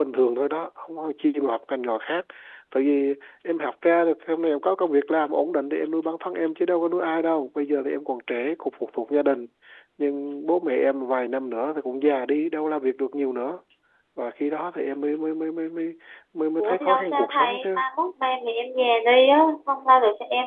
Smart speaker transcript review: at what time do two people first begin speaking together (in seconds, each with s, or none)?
16.6 s